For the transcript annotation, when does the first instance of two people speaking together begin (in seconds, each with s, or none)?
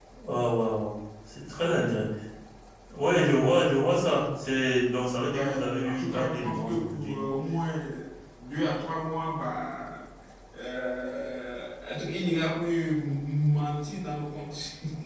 5.2 s